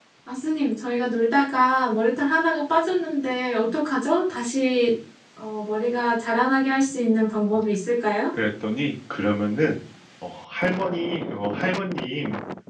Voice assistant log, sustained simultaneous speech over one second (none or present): none